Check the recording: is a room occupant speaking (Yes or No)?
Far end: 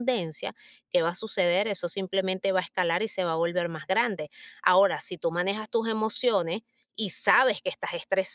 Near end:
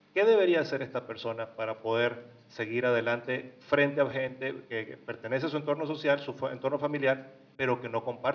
Yes